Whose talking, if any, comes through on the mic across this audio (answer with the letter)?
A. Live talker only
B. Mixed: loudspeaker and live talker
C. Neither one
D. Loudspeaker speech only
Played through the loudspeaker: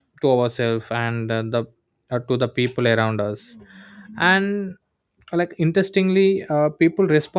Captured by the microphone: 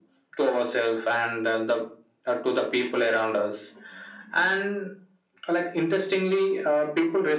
D